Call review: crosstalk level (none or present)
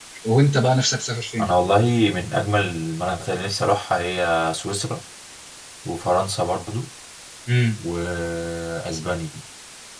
none